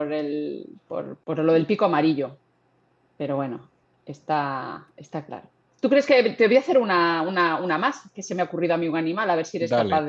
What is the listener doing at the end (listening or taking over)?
listening